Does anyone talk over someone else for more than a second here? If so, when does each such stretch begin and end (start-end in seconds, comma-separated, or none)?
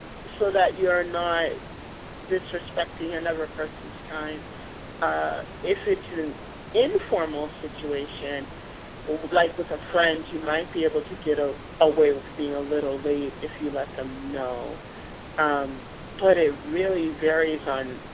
none